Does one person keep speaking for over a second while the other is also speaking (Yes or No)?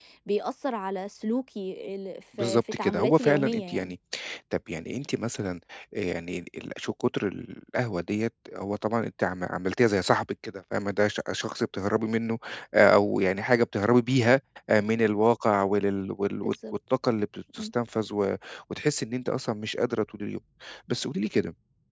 Yes